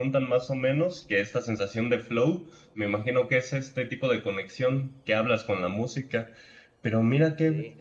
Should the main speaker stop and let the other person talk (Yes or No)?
No